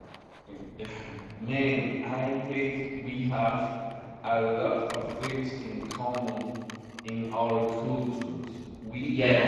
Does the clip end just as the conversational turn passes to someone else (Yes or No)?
No